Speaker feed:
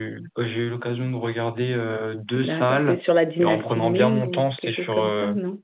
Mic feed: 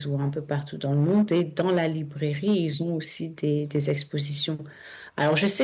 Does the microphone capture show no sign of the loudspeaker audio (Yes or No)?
Yes